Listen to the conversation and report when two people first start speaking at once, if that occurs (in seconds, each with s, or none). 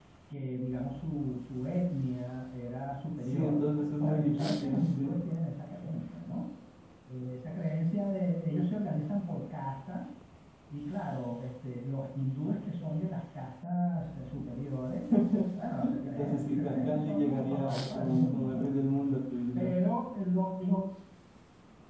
3.2 s